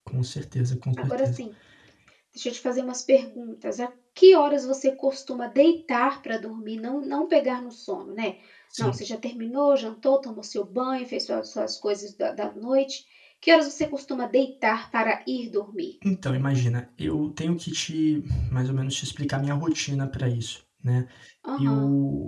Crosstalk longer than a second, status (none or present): none